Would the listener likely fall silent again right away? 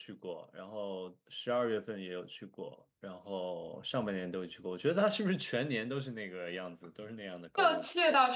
No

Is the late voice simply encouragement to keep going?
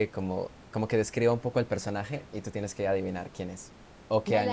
No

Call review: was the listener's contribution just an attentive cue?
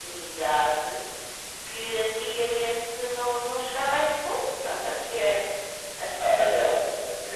No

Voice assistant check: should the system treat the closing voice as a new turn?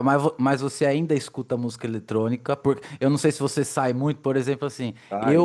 No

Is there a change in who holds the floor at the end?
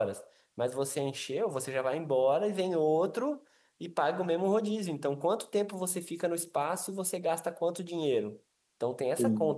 No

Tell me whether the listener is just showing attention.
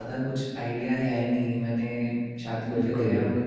Yes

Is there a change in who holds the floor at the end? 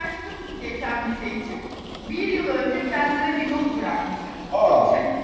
No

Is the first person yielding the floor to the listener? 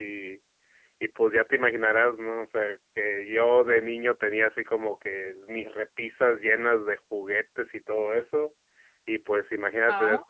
No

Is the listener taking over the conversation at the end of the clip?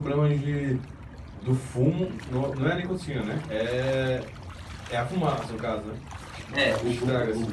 Yes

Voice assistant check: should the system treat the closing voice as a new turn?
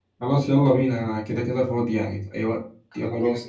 Yes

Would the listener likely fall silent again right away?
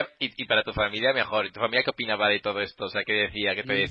No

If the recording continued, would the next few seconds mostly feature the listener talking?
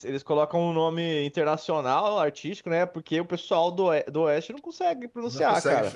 Yes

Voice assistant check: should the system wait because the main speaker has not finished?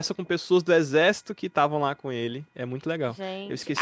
No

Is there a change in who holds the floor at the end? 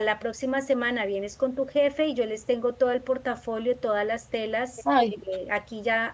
No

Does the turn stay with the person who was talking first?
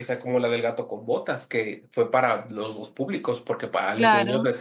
Yes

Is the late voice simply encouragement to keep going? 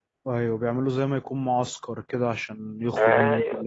No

